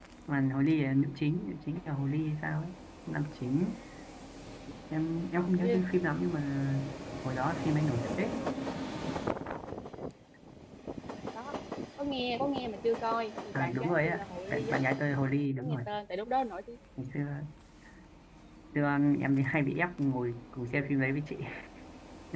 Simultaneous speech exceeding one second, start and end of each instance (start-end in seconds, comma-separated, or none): 13.5-14.8